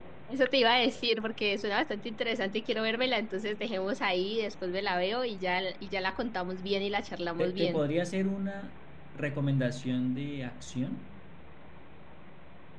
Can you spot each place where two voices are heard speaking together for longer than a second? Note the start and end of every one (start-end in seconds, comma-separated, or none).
none